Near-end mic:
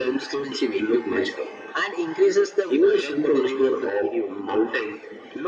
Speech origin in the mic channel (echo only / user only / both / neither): echo only